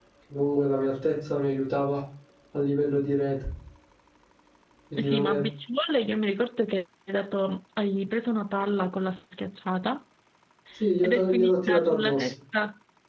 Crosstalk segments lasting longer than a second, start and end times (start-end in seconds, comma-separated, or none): 11.0-12.3